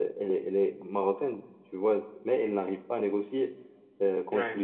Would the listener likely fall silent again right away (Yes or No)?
Yes